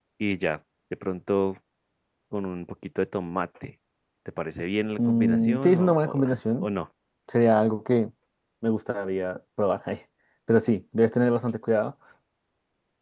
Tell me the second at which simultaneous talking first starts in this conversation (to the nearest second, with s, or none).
5 s